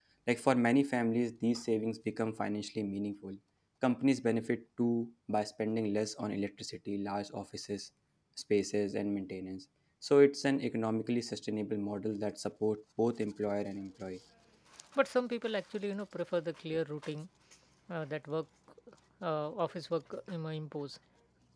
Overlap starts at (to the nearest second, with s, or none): none